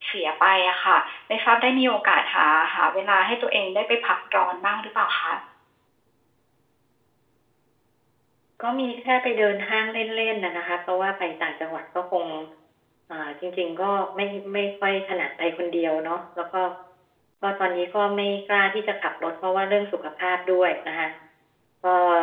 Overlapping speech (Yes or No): No